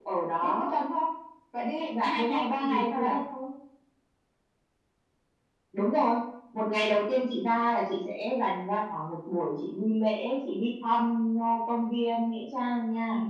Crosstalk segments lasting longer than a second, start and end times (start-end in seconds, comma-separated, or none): 1.9-3.2